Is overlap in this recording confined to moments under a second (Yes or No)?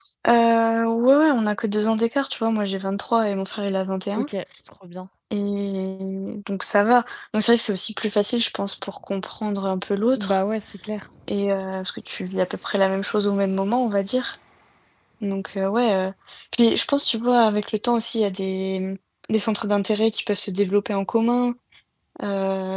Yes